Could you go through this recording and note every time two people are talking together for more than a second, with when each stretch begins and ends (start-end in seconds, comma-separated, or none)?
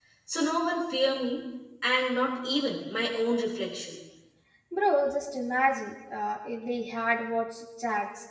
none